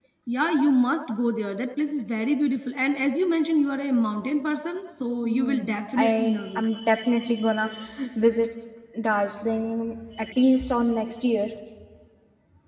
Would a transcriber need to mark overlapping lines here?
Yes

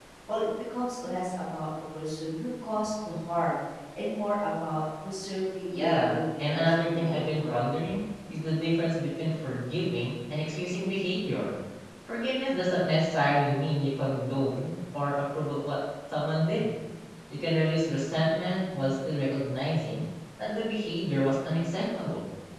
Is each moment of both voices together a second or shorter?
No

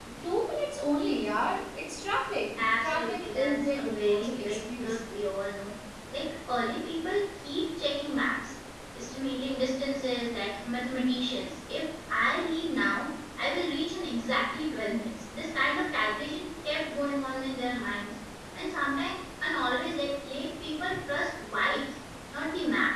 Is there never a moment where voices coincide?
No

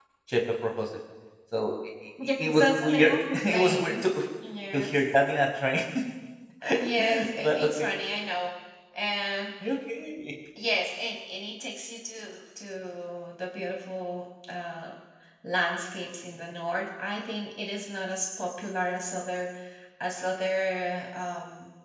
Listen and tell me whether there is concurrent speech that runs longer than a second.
Yes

